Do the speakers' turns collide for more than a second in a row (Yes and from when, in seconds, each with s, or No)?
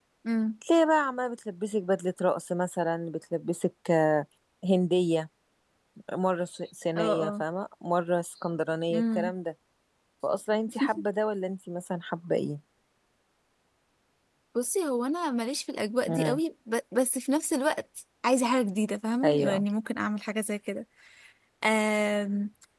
No